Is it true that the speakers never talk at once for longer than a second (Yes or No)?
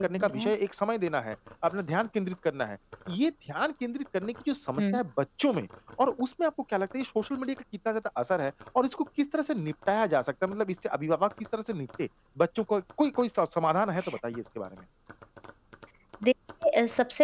Yes